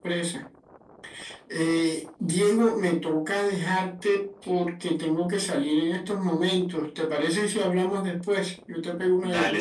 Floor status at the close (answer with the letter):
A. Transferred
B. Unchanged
A